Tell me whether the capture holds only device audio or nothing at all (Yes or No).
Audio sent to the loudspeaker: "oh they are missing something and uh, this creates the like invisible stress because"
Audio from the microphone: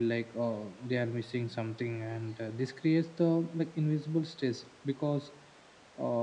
Yes